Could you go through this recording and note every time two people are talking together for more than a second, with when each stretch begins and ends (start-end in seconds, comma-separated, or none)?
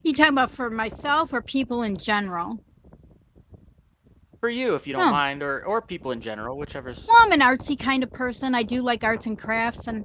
none